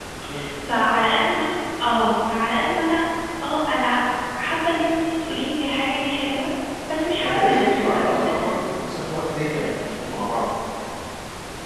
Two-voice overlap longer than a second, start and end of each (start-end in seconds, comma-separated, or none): 7.2-8.5